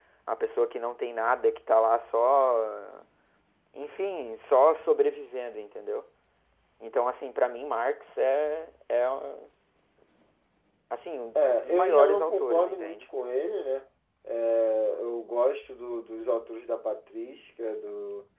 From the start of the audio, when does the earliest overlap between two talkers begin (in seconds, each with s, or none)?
11.4 s